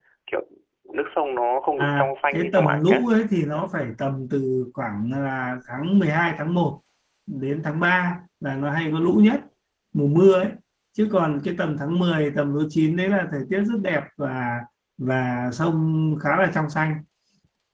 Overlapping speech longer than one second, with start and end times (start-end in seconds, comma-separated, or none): 1.8-3.1